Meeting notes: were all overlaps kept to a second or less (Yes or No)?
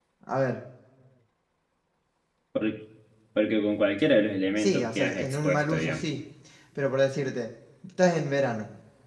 No